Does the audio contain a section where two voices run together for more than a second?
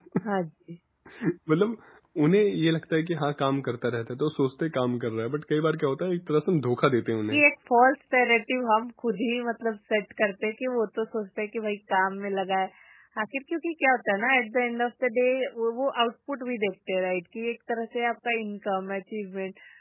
No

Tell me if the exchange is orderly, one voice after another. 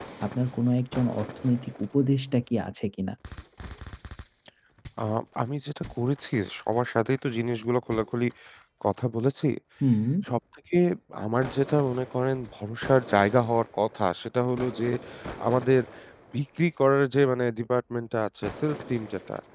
Yes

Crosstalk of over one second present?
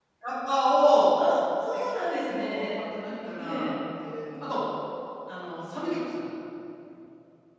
No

